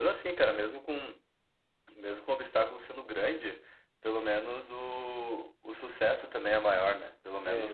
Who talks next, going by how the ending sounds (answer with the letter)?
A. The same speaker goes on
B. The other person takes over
A